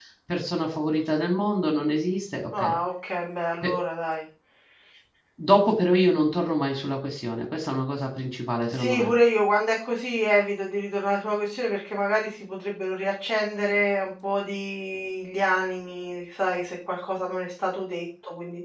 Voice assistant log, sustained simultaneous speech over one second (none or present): none